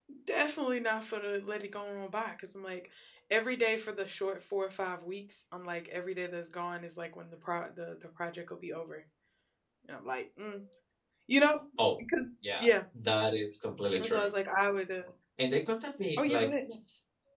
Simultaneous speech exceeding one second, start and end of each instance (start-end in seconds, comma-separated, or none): none